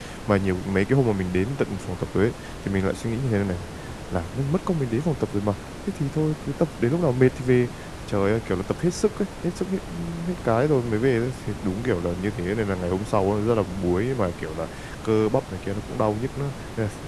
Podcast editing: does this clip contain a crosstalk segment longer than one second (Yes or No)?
No